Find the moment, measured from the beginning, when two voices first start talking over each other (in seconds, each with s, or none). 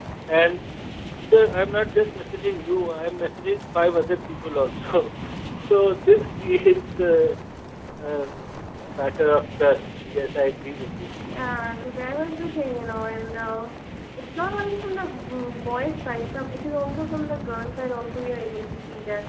none